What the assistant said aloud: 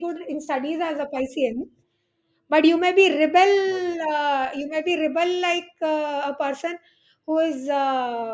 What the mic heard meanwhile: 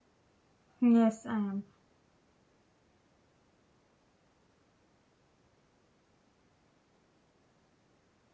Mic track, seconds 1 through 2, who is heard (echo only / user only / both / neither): user only